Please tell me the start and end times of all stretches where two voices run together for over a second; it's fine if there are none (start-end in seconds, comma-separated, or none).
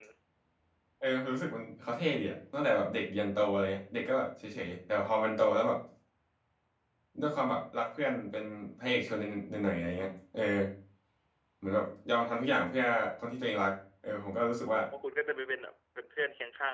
none